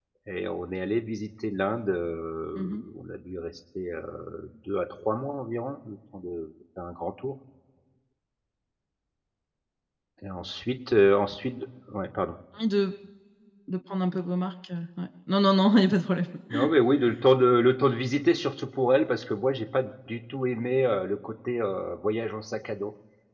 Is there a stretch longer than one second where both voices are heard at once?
No

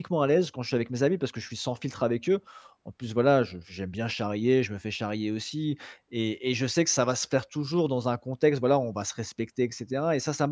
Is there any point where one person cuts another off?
No

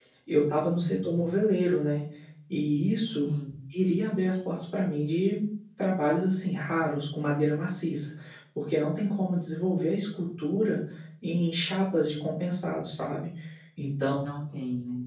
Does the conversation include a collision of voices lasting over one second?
No

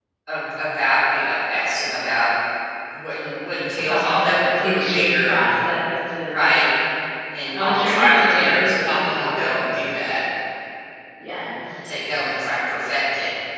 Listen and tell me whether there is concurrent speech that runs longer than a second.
Yes, from 3.8 s

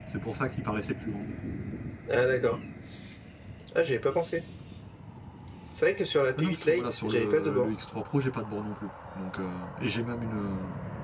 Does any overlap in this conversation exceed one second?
Yes, from 6.4 s

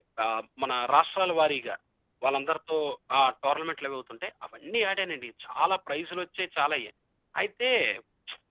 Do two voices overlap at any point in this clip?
No

